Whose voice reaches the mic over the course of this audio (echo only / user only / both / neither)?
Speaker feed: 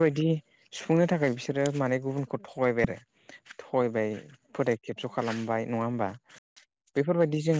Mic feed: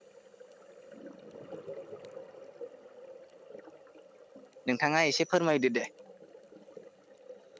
user only